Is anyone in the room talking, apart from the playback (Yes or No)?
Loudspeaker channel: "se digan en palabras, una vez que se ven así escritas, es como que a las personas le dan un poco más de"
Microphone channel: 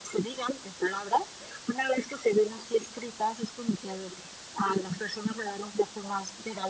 No